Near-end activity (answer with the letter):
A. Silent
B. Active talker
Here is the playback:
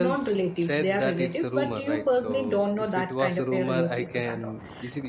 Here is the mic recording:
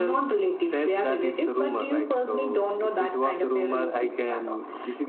A